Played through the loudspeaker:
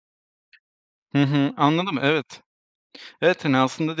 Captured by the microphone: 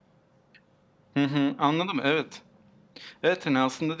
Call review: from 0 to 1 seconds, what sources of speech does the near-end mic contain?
neither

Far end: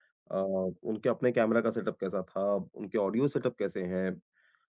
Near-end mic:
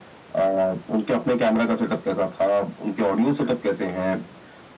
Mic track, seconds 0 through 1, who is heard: echo only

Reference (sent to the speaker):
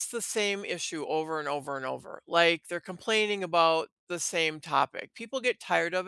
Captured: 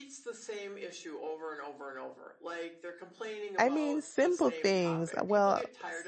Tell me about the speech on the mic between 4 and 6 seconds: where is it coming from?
both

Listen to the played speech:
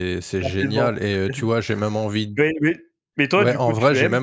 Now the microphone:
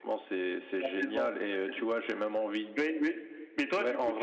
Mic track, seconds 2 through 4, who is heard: echo only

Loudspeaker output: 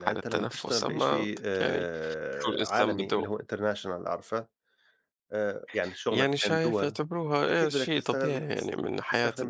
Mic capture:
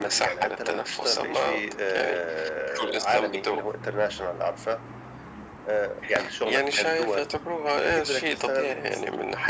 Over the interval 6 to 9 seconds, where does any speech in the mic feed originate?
echo only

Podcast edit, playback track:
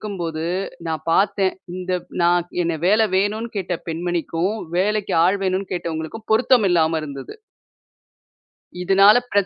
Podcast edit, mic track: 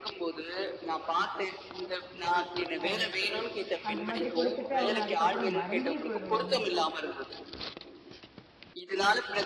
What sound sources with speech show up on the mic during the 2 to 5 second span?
both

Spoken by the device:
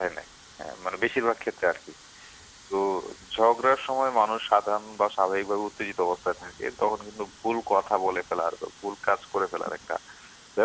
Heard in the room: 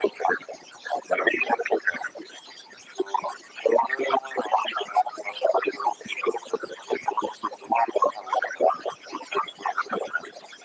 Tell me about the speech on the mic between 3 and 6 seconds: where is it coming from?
echo only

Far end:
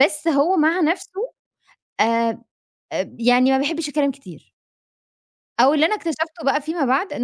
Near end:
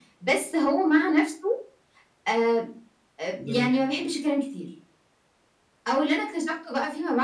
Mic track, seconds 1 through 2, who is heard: echo only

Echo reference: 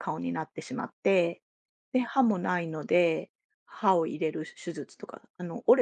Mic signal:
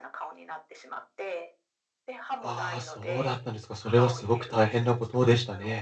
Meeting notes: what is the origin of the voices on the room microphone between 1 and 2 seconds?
echo only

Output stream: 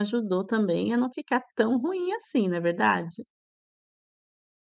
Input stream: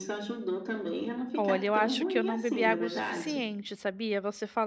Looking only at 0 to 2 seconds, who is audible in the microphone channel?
both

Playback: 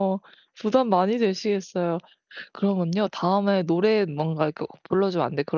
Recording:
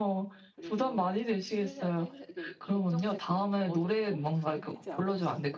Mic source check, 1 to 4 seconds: both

